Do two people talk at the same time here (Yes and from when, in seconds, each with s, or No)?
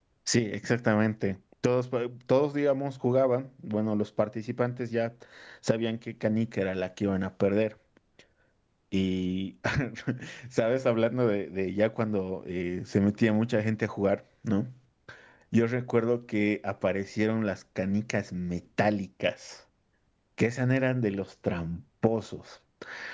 No